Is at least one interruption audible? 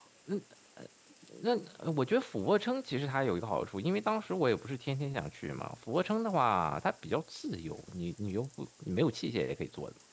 No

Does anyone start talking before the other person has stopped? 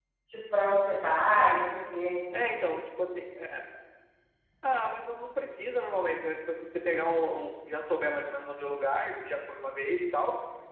No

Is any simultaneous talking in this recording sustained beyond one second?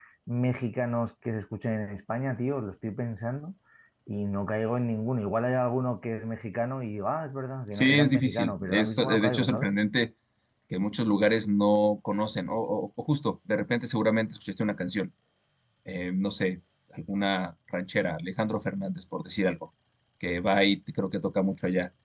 Yes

